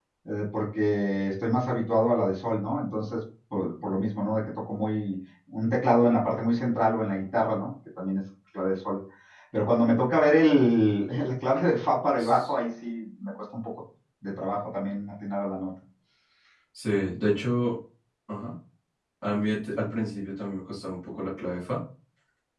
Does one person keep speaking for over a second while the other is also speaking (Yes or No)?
No